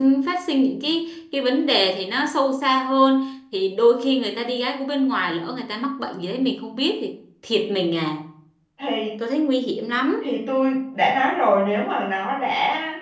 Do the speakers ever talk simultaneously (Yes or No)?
No